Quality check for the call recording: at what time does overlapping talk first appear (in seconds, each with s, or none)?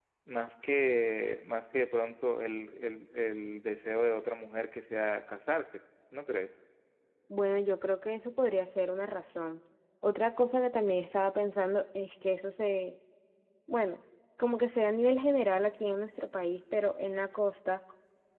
none